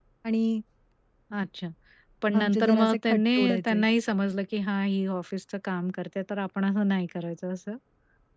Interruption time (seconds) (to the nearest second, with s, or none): 2 s